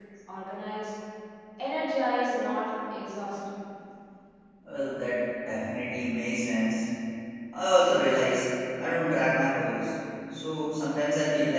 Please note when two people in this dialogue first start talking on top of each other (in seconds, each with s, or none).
none